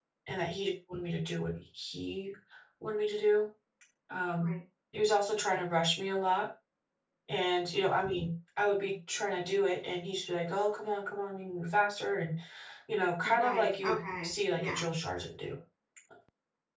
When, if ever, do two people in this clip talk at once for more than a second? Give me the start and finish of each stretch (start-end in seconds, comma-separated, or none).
13.2-14.8